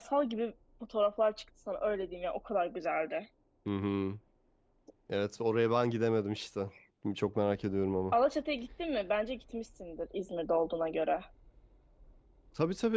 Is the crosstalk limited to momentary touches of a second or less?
Yes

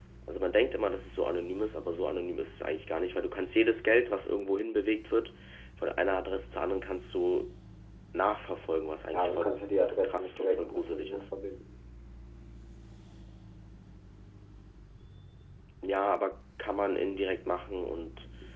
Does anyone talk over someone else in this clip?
Yes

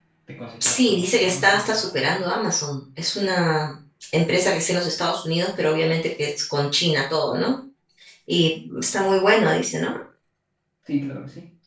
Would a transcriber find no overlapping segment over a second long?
No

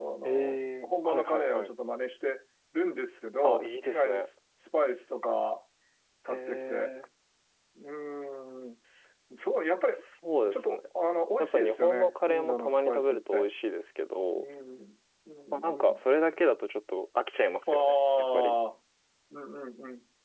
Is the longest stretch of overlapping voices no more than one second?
No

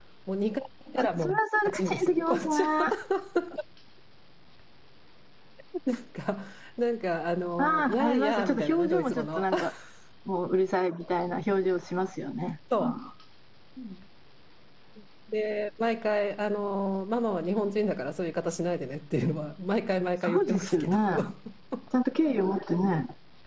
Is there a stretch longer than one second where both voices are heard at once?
Yes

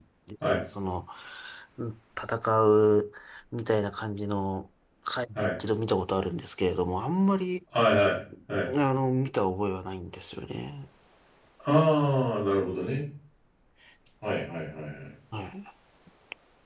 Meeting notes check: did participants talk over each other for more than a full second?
No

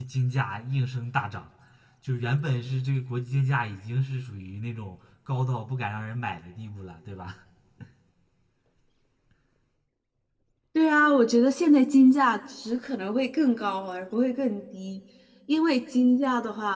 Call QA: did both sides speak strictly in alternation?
Yes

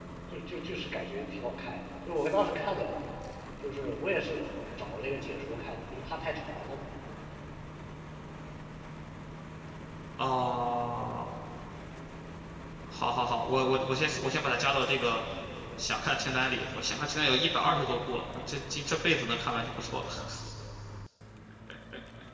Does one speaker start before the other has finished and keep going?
No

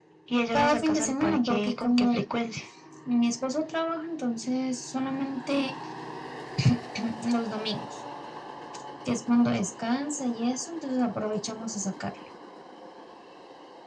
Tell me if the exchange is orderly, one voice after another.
No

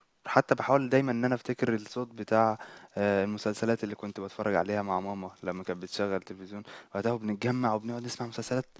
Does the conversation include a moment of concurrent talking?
No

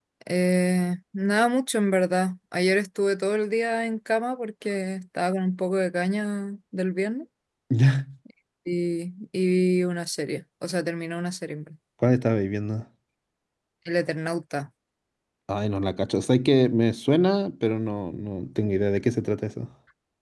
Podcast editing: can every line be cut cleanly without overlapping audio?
Yes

